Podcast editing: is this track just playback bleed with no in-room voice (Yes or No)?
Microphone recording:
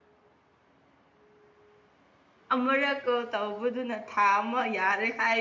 No